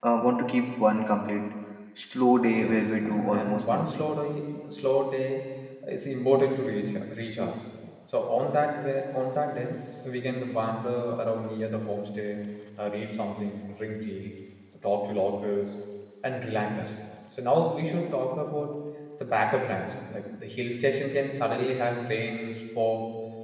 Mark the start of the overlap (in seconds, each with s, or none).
2.5 s